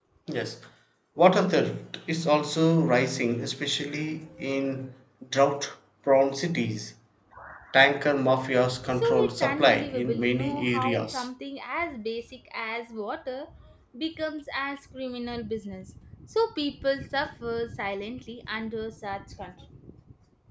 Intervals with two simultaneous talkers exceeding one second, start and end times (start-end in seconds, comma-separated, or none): 8.9-11.3